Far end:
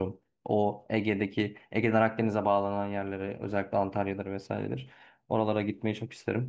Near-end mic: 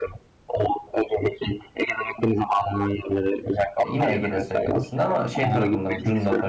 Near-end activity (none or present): present